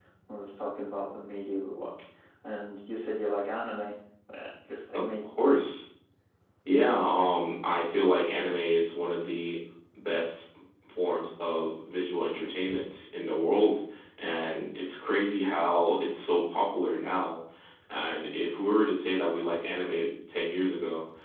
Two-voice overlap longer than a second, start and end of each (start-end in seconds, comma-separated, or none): none